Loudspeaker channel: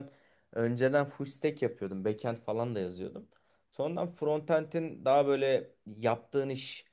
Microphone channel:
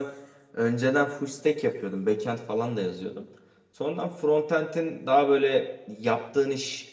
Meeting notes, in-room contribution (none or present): none